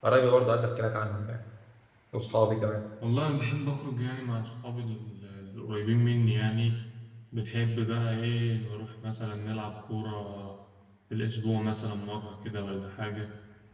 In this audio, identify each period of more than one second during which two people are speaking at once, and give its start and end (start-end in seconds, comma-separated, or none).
none